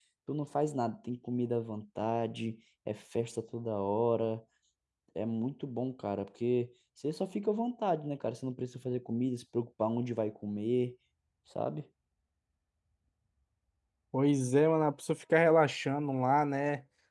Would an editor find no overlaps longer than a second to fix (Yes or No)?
Yes